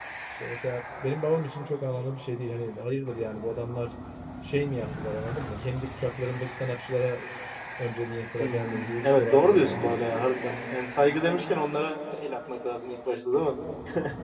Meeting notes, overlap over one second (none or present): present